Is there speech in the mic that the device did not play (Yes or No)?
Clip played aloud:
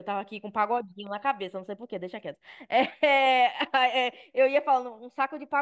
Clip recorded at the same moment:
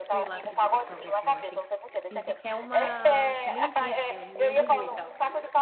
Yes